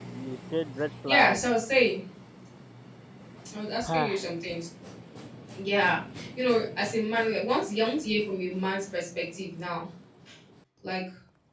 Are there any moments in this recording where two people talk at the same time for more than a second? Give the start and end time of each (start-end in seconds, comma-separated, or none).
none